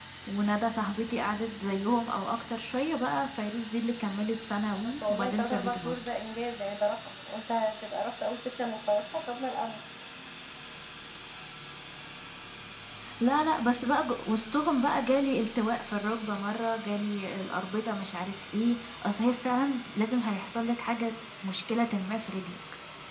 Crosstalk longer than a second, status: present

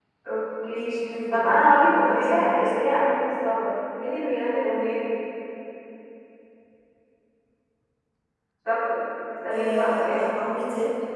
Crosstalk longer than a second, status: present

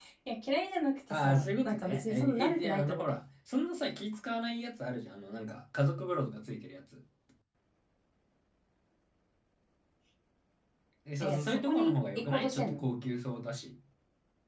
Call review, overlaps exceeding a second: present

